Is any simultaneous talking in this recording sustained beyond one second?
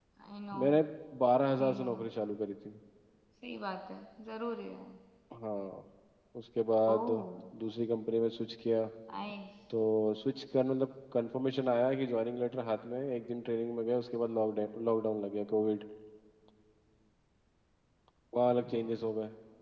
No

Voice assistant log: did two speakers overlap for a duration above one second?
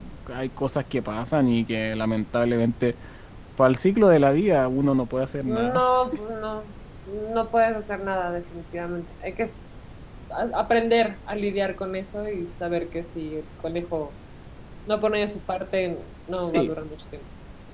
No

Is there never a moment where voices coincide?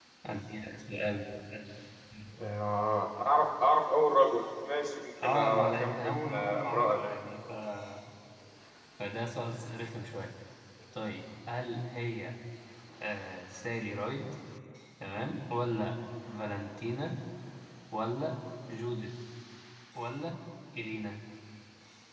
No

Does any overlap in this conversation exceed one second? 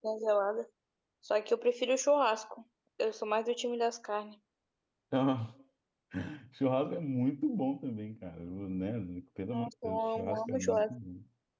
Yes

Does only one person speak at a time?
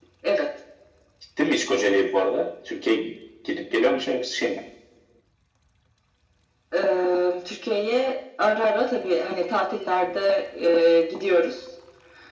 Yes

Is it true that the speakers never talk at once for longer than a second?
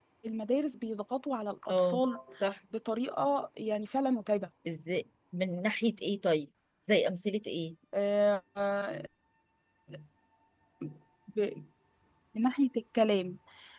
Yes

